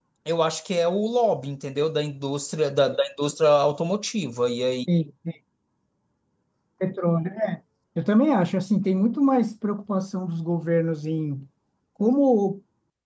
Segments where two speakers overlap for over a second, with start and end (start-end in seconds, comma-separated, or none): none